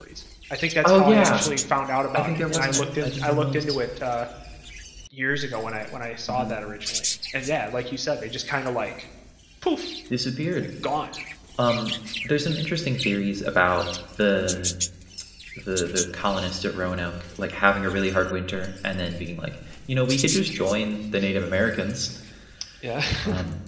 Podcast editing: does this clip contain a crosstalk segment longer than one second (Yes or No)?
Yes